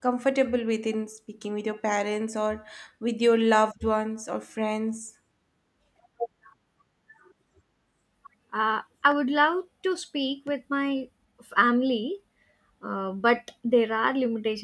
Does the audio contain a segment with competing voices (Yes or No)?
No